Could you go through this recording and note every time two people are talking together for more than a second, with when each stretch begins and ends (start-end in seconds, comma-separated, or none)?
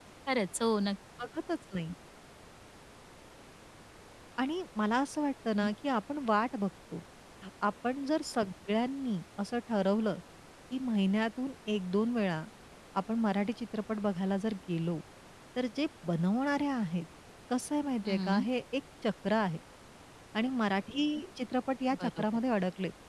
none